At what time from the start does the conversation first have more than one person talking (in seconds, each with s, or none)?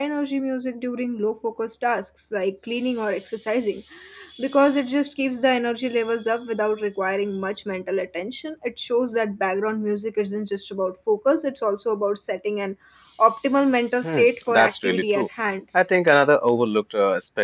14.0 s